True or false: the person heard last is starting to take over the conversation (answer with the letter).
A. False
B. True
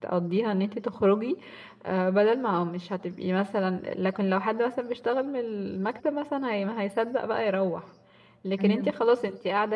A